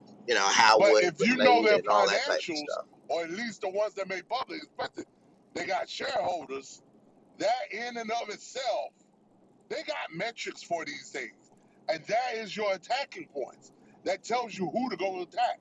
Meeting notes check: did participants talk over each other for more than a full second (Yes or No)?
Yes